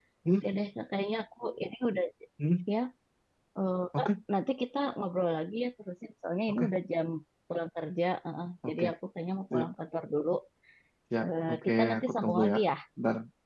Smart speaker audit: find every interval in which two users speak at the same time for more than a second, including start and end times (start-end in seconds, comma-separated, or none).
11.2-12.6